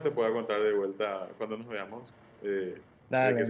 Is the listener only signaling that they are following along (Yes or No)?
No